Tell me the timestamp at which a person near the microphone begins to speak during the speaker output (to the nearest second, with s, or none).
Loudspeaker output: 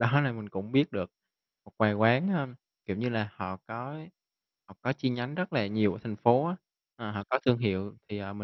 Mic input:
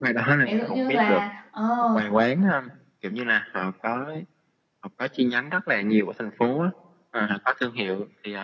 0 s